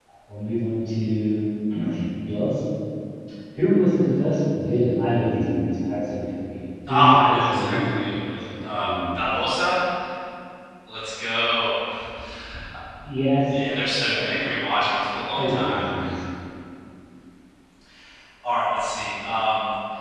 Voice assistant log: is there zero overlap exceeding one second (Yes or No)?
No